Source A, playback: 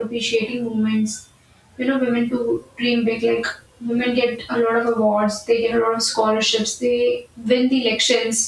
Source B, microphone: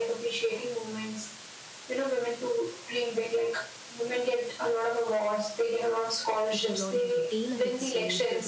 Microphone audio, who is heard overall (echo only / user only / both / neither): both